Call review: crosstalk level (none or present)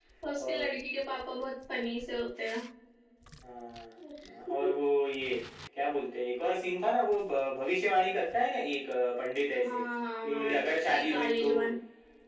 present